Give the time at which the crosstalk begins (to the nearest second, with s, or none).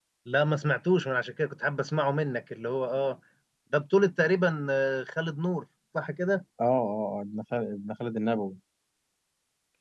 none